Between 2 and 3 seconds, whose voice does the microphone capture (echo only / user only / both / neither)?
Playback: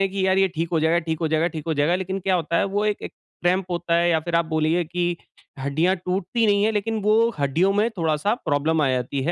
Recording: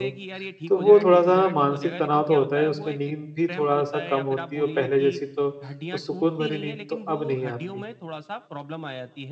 both